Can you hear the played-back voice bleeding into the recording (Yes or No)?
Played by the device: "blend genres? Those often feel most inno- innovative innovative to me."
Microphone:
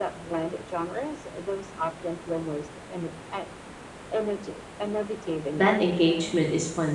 Yes